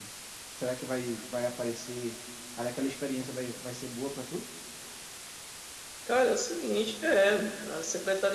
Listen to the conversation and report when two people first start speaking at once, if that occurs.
none

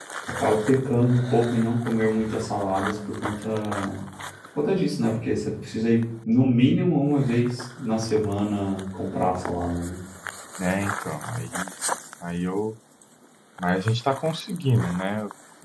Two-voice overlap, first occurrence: none

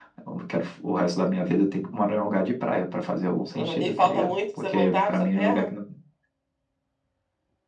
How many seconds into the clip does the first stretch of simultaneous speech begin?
3.5 s

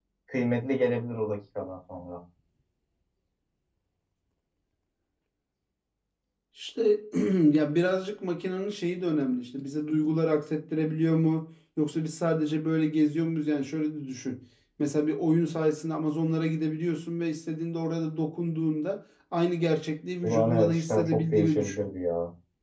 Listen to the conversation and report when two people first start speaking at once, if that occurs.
20.2 s

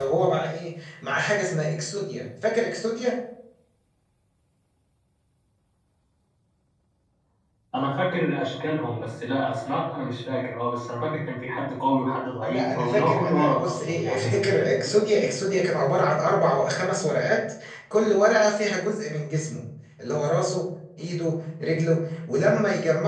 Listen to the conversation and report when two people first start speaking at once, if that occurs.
12.4 s

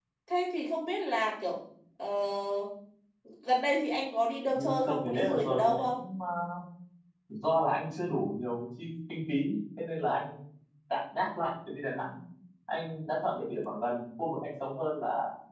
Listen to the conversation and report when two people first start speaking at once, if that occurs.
4.5 s

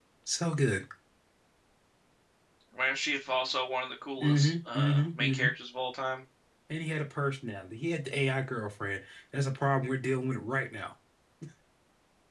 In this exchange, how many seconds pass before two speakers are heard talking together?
4.2 s

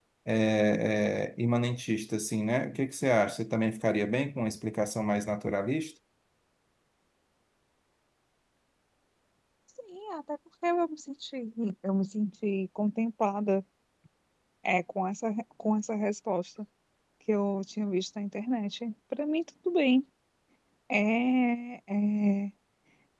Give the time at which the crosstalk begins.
none

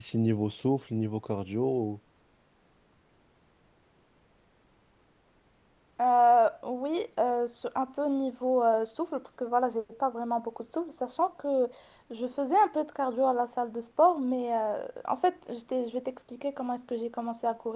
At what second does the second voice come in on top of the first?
none

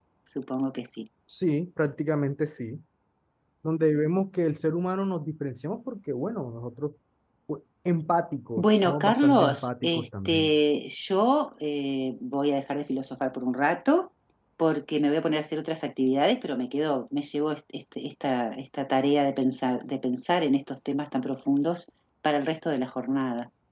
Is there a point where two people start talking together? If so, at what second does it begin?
8.6 s

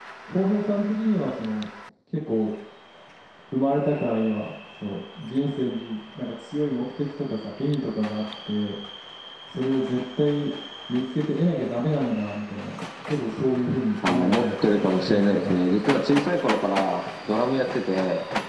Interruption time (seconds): 14.0 s

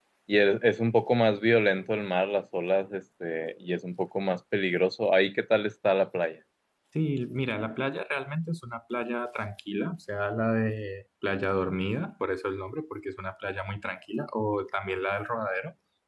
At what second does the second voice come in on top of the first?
none

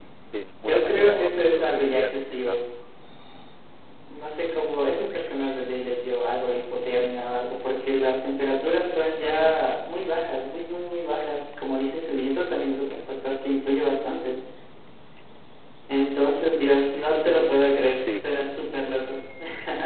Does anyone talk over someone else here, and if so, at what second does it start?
0.7 s

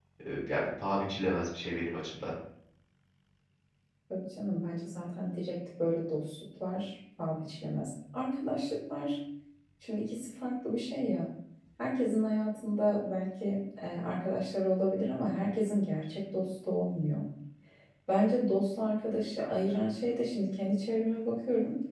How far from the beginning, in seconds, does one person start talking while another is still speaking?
none

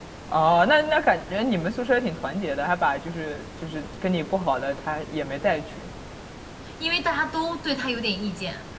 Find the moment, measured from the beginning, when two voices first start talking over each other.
none

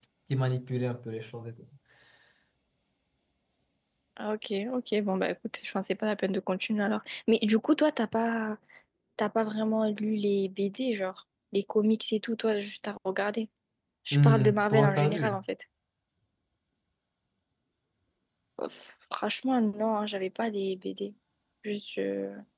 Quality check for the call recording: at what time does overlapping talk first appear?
14.1 s

